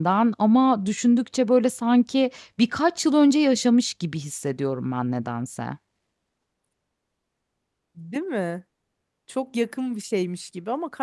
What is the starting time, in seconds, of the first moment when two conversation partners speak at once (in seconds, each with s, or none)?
none